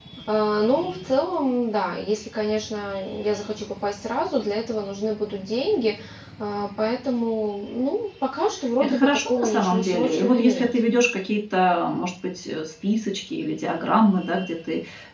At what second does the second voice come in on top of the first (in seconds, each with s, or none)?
8.8 s